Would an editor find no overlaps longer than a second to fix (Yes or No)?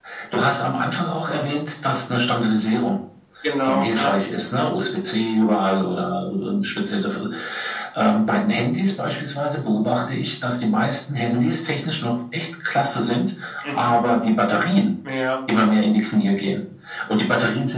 Yes